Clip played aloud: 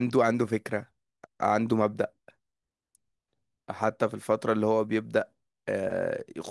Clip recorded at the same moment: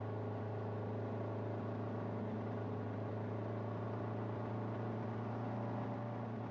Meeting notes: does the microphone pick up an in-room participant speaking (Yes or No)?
No